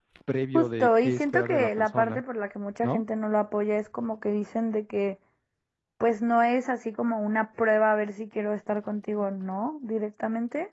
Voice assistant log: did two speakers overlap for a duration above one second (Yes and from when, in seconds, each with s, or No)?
Yes, from 0.5 s